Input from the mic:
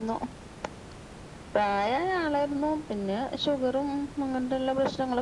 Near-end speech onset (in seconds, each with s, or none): none